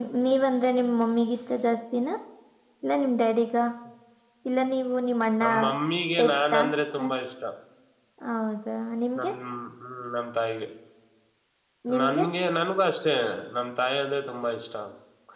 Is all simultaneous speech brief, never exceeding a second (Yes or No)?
Yes